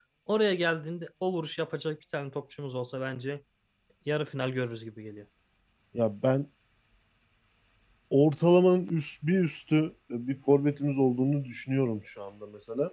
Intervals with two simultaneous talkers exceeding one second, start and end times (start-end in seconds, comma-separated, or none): none